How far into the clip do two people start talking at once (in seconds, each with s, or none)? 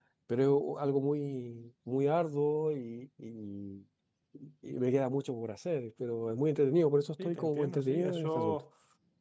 7.2 s